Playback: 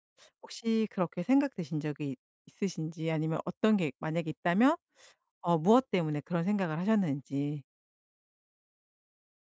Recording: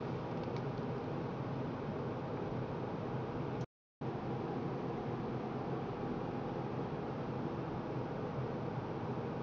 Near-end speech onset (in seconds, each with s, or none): none